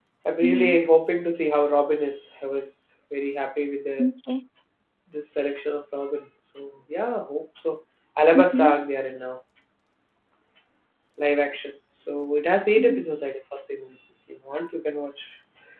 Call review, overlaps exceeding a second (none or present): none